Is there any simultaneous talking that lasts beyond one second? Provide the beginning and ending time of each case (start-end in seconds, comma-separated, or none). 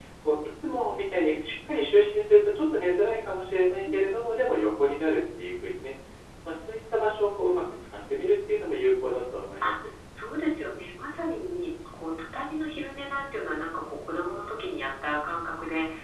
none